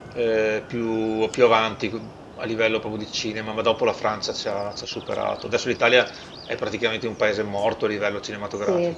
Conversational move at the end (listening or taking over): taking over